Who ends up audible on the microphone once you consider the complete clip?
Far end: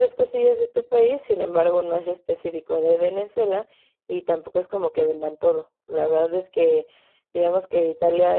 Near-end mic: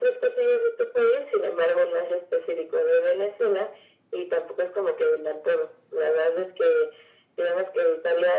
echo only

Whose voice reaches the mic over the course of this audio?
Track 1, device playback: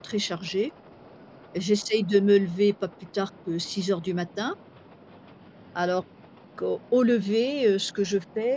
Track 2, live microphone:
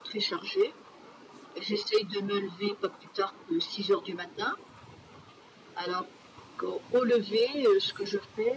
echo only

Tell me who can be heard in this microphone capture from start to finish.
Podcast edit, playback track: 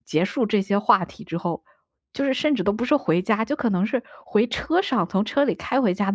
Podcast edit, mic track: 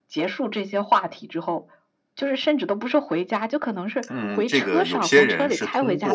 both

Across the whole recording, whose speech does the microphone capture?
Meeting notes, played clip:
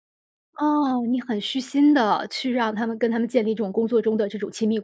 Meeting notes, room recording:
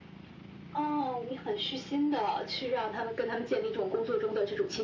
echo only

